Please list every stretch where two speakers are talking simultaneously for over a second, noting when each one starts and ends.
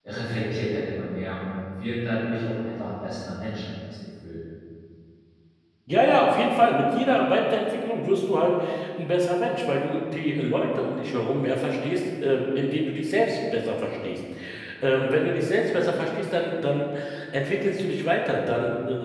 none

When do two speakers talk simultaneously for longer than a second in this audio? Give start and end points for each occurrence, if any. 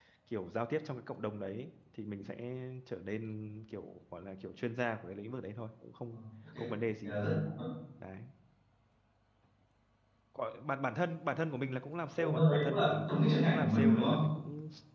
12.2-14.2

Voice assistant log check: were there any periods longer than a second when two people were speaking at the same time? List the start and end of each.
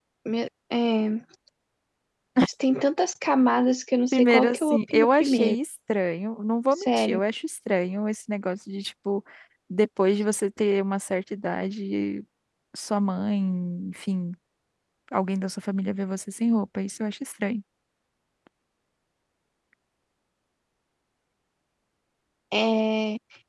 4.1-5.5

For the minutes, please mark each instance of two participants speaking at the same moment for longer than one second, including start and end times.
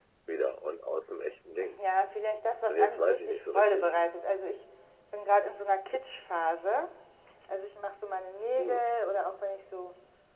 2.6-3.9

